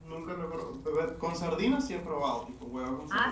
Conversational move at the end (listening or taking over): taking over